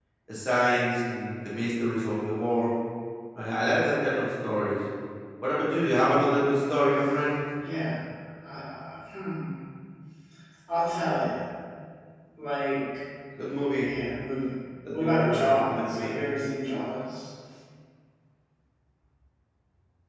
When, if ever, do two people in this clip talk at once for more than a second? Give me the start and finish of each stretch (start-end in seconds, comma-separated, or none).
14.9-16.1